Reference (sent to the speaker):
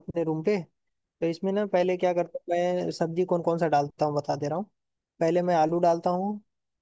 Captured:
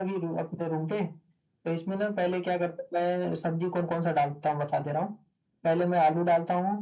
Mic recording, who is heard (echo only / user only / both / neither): echo only